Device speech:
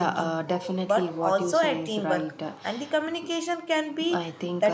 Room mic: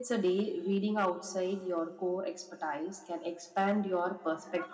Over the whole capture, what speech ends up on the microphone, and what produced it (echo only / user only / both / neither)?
user only